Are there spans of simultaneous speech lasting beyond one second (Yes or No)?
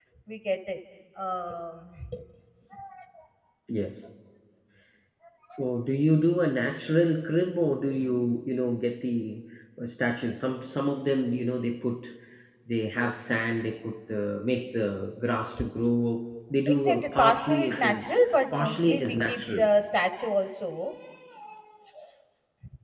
Yes